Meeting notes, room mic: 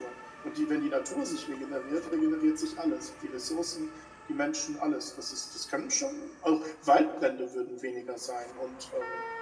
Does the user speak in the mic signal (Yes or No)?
No